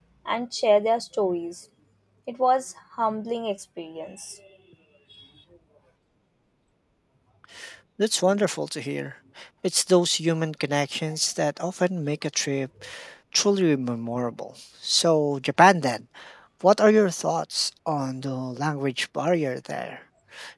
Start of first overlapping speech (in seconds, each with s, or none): none